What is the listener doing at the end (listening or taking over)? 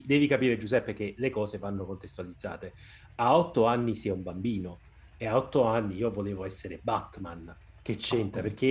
listening